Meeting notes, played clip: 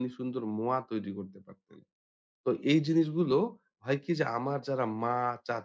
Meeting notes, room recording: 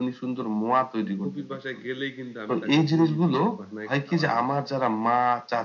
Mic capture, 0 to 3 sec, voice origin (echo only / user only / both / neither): both